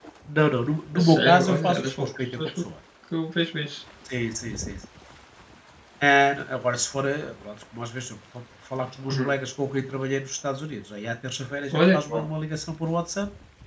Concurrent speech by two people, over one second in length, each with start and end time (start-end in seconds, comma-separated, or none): 0.9-2.5